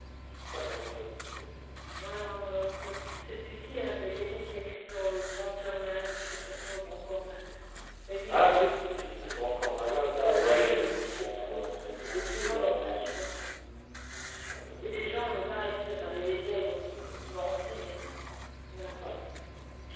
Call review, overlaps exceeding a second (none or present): present